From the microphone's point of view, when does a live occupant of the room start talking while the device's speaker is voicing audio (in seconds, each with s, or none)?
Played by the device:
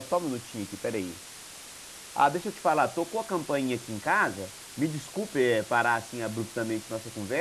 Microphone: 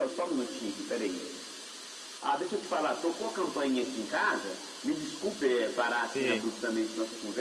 6.1 s